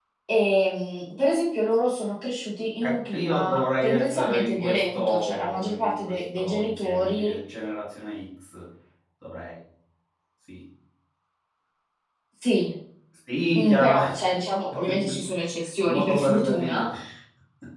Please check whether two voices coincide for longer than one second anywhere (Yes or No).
Yes